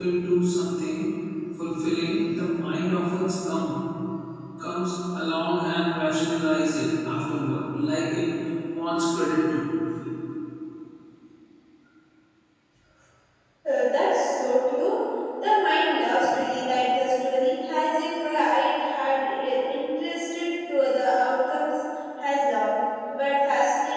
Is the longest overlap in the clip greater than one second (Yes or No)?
No